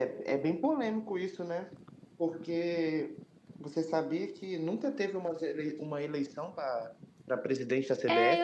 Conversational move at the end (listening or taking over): taking over